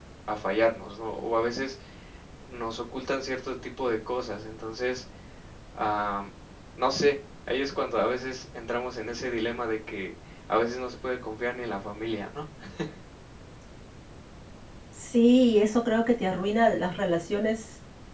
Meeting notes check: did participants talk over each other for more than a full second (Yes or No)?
No